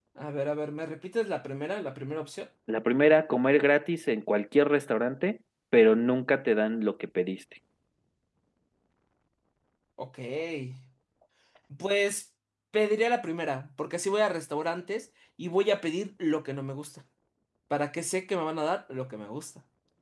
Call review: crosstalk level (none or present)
none